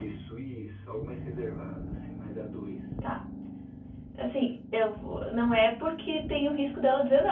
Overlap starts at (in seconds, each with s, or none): none